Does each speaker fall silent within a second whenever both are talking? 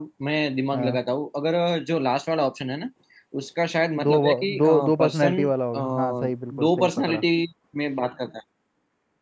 No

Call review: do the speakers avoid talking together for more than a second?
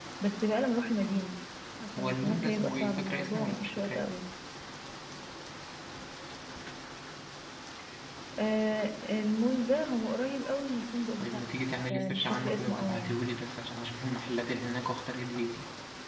No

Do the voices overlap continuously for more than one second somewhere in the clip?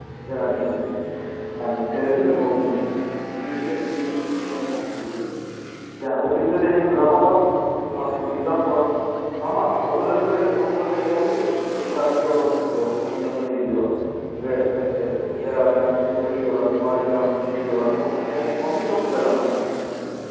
No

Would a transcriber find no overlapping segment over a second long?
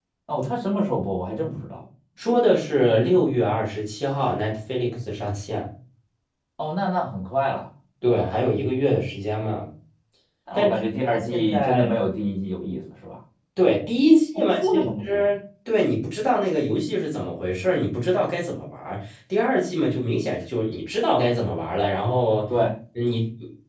No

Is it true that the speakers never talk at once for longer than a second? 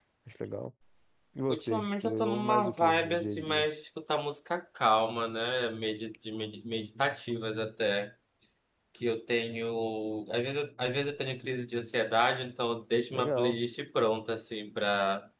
No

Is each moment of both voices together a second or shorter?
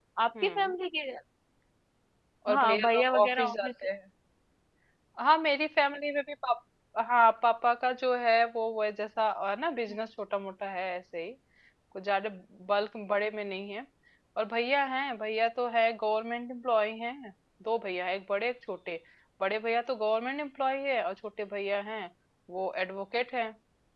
No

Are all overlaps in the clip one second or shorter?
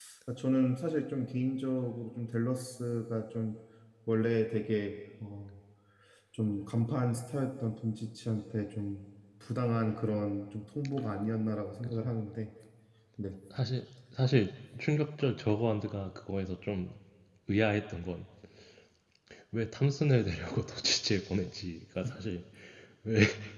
Yes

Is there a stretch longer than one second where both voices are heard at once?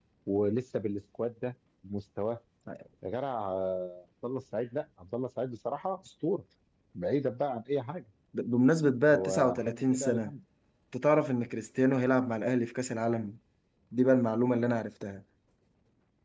Yes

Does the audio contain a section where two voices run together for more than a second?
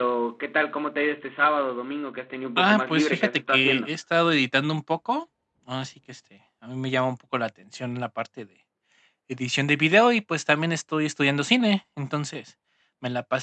Yes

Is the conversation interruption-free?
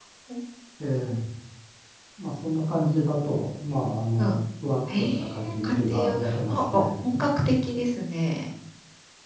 No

